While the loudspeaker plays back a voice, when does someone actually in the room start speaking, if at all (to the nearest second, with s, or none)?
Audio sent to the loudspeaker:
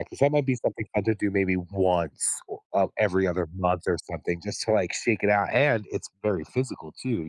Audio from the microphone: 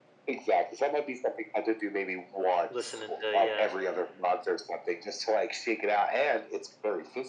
3 s